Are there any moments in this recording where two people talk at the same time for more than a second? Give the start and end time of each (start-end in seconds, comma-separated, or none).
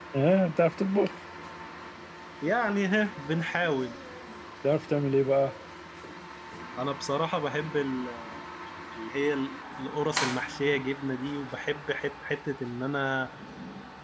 none